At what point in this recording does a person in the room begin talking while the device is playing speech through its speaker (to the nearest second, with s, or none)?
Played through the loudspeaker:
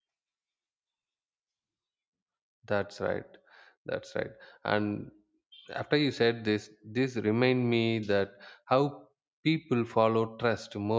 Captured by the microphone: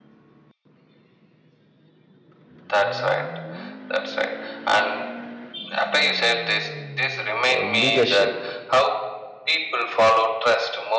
8 s